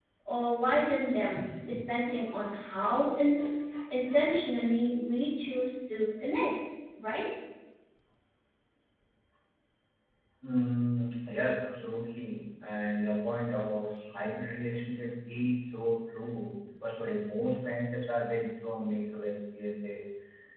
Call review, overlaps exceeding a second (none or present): none